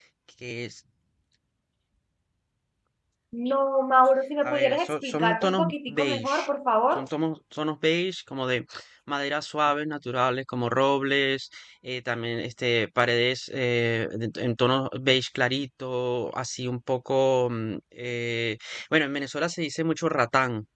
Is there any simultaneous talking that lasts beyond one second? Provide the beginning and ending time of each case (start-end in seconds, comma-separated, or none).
4.4-6.5